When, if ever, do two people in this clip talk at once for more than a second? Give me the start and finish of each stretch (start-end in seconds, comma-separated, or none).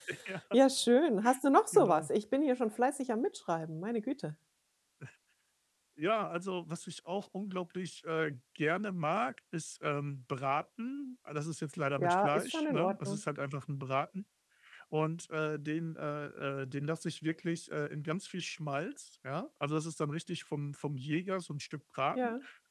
12.0-13.2